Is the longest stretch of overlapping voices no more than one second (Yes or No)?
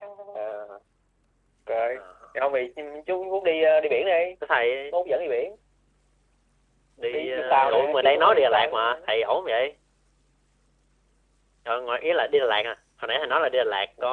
No